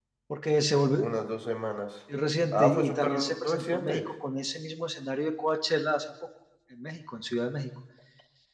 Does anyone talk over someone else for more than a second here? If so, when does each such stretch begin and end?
2.5-4.0

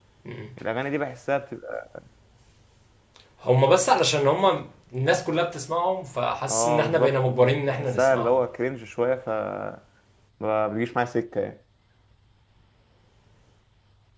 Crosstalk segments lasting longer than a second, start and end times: 6.5-8.4

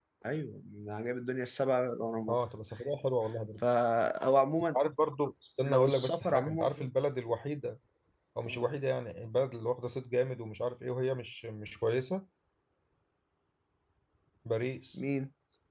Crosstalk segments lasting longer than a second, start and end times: 5.7-6.9

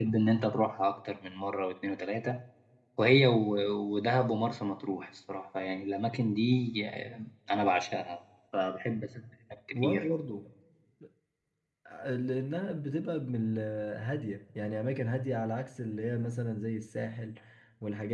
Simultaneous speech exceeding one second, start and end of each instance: none

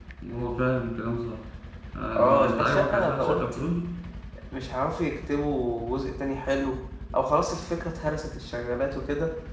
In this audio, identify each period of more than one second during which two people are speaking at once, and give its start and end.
2.1-3.4

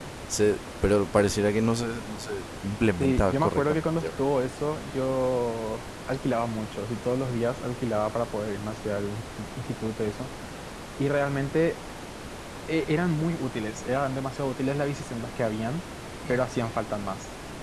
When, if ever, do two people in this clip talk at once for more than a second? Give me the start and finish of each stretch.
3.0-4.2

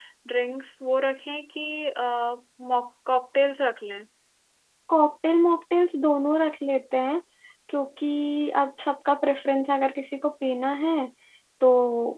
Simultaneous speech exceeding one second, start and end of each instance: none

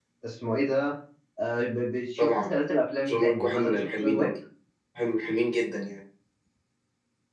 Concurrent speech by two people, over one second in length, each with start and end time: 3.1-4.3

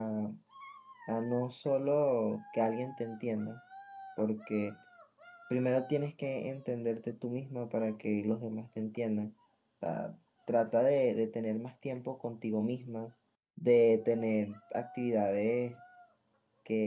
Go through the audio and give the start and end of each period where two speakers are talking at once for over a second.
none

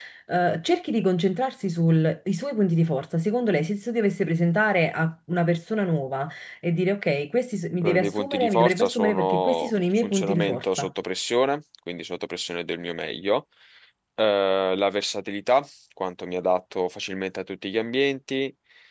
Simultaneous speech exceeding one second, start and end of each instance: 7.8-10.9

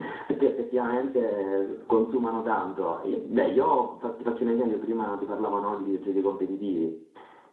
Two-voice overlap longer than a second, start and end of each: none

